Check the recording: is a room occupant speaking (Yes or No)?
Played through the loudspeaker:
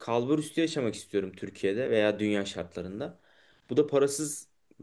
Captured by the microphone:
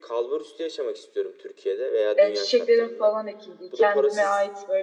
Yes